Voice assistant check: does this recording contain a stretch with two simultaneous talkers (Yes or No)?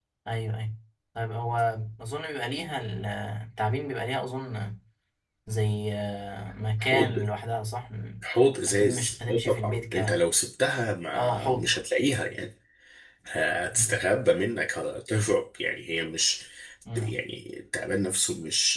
Yes